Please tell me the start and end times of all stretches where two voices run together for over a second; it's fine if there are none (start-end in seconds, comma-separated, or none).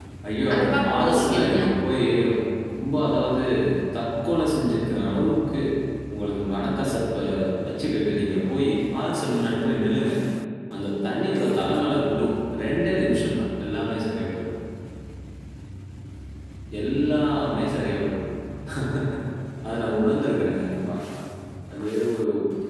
0.5-2.0